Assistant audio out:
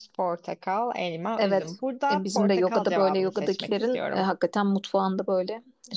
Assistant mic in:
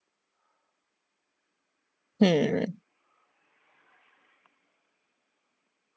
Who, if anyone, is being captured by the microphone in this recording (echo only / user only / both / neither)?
user only